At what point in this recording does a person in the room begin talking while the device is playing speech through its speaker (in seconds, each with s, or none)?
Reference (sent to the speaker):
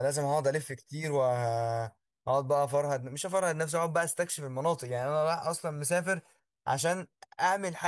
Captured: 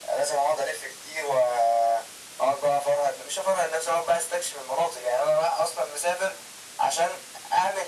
none